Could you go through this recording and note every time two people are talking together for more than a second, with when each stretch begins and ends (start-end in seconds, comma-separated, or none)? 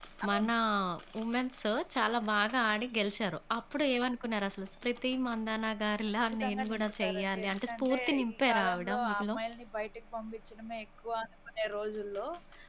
6.2-9.4